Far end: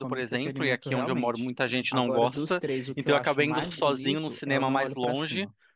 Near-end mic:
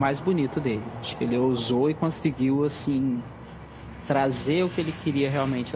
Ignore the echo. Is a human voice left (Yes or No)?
Yes